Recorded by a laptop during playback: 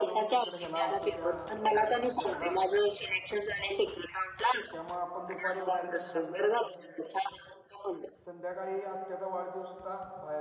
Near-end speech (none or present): present